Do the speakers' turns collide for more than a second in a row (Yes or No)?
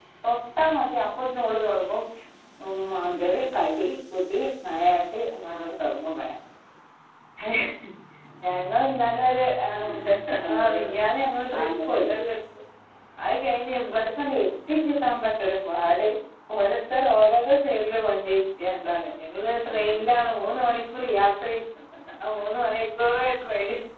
No